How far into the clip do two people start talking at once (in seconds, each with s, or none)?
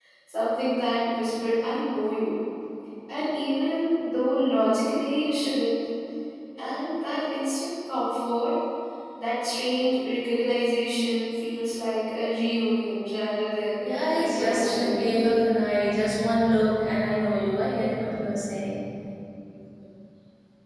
13.8 s